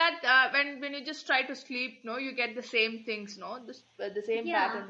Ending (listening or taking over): taking over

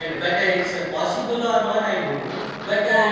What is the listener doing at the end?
listening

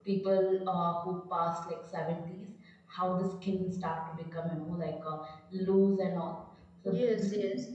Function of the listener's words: listening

